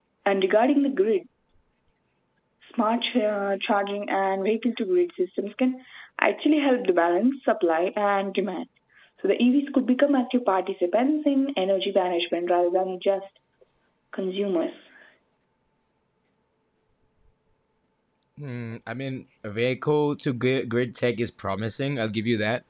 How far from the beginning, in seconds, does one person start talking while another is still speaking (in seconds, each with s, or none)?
none